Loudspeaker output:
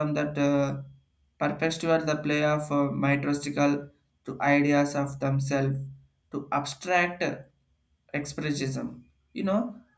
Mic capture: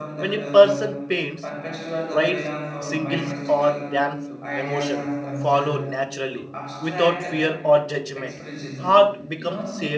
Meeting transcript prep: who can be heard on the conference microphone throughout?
both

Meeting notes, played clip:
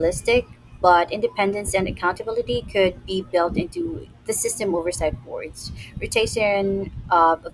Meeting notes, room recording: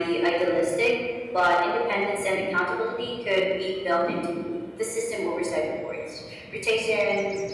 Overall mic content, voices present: echo only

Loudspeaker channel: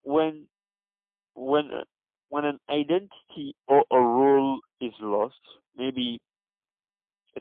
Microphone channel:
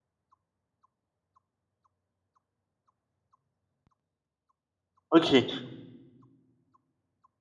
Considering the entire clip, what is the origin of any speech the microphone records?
user only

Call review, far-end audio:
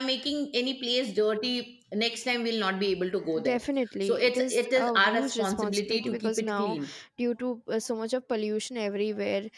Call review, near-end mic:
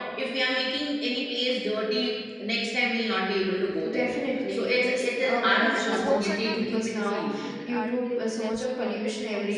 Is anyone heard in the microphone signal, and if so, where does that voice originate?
both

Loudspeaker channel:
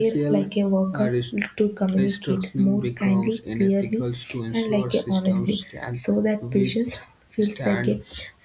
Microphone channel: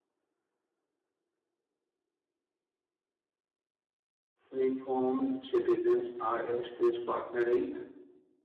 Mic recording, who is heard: user only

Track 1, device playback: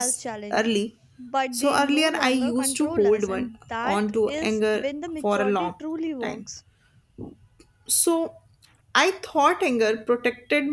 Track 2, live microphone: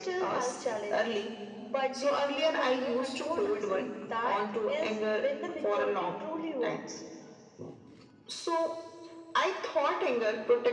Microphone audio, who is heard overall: echo only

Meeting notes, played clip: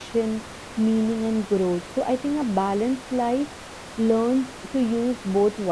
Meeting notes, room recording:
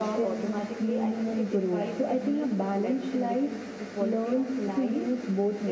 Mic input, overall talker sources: both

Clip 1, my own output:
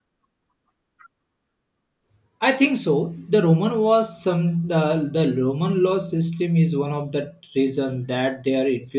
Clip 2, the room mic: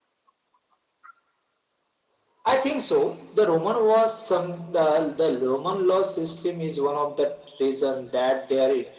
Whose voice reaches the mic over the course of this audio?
echo only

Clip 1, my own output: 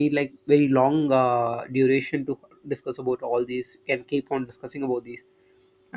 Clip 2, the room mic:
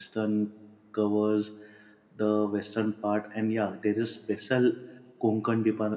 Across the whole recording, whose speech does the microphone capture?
user only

